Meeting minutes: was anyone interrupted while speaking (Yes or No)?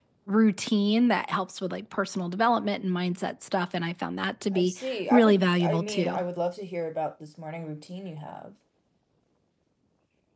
Yes